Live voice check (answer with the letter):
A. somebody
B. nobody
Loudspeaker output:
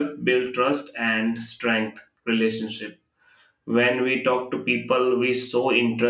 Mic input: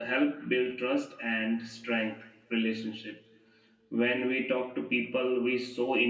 B